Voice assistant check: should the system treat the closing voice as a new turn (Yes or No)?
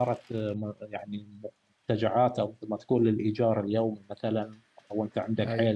No